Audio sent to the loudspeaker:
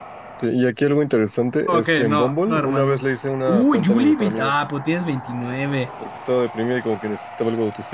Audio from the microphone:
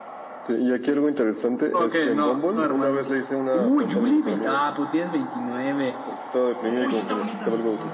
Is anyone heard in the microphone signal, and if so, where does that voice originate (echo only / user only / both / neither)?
both